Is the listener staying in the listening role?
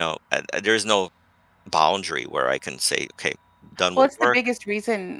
No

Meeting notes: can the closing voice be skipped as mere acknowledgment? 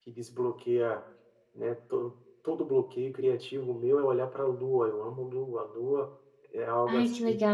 No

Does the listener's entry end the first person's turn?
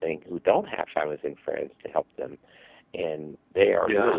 No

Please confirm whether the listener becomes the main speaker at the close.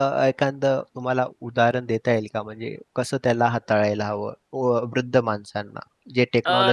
Yes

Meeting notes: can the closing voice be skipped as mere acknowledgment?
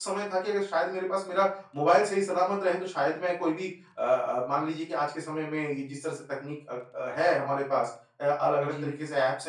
Yes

